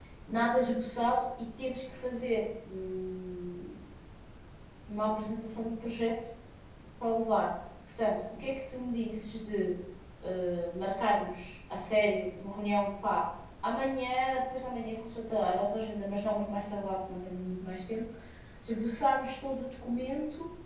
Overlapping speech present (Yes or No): No